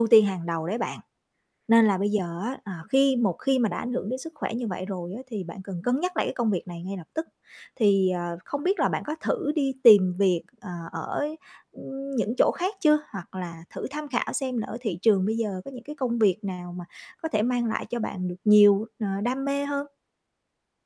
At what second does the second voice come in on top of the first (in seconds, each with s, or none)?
none